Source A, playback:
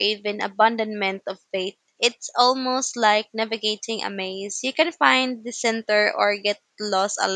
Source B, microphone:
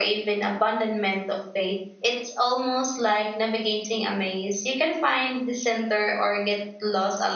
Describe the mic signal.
echo only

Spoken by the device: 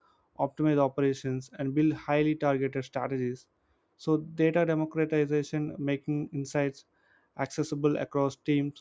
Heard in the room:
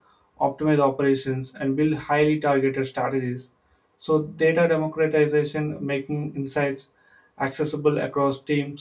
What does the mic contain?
echo only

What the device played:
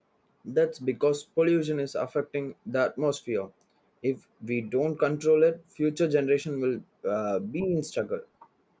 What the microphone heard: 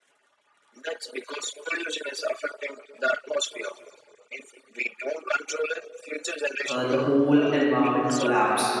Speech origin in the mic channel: both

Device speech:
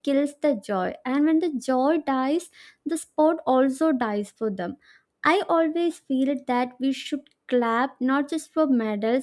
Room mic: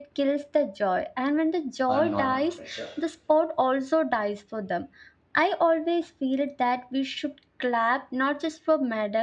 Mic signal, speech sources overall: both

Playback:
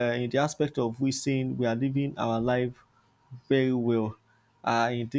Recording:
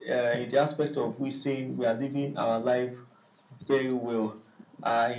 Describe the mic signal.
echo only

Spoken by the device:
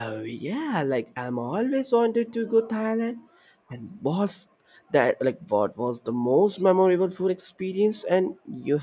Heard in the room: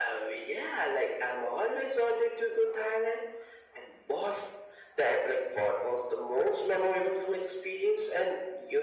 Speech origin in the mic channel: echo only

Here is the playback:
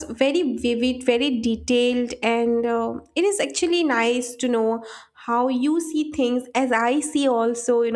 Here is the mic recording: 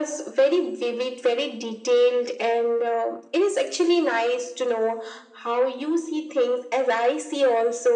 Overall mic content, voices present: echo only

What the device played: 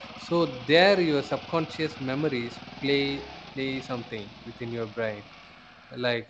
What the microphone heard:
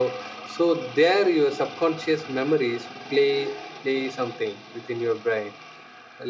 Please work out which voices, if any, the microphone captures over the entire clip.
echo only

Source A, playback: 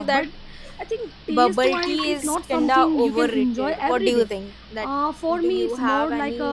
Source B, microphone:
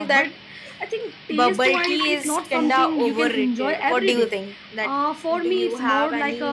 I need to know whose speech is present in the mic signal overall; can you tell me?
echo only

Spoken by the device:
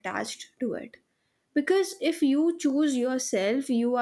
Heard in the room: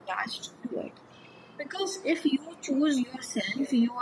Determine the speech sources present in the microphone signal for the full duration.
echo only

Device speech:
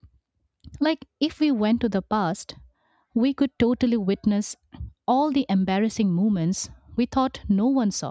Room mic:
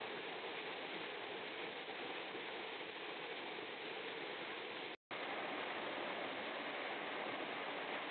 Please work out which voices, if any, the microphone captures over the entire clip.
neither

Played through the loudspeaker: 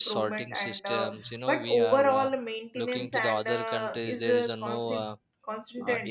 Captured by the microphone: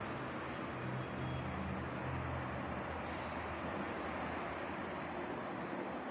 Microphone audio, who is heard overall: neither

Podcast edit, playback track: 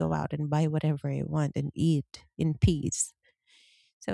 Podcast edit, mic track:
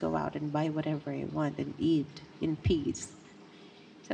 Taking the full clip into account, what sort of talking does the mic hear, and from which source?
echo only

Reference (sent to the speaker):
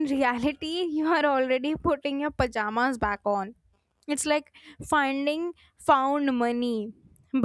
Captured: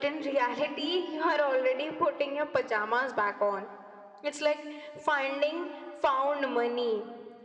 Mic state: echo only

